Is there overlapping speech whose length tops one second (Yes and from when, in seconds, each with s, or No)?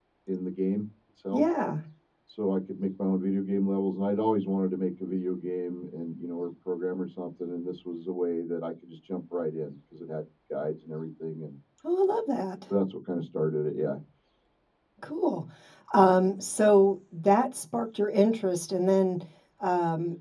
No